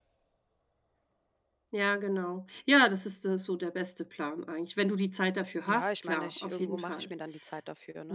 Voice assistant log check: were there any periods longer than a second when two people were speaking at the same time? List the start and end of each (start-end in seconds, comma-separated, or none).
5.6-7.1